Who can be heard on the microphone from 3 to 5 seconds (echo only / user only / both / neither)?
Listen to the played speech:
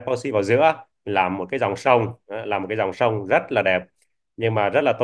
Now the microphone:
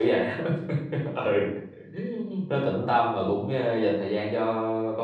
user only